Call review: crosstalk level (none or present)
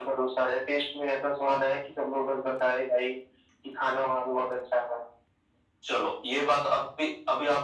none